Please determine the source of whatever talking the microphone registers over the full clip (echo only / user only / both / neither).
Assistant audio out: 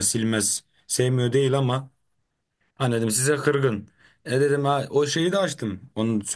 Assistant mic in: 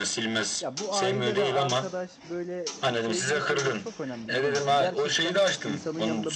both